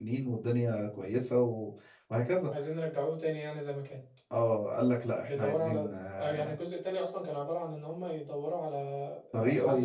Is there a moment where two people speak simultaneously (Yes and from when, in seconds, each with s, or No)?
Yes, from 5.2 s